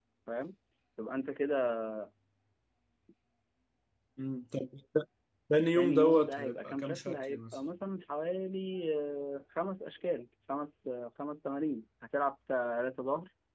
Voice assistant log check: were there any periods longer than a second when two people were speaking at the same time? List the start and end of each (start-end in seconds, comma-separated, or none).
5.8-7.6